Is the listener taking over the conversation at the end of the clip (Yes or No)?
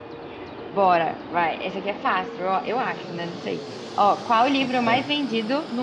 No